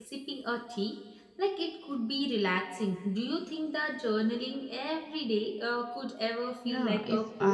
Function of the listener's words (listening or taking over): taking over